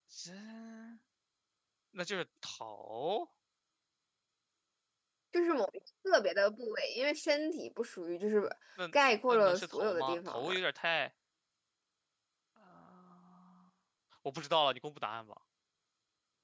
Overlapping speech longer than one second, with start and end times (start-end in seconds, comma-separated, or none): 9.3-10.5